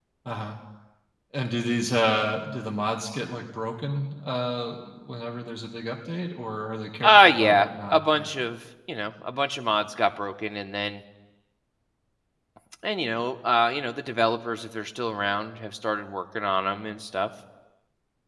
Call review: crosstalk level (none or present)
present